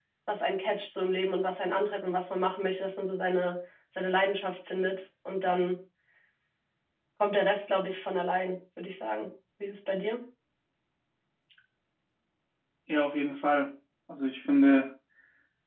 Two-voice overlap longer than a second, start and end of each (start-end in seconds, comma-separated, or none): none